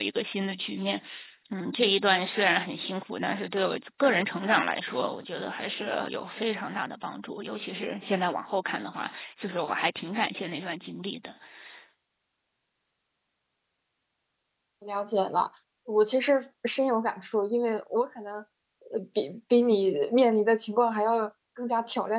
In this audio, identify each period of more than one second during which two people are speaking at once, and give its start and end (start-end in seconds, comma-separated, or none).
none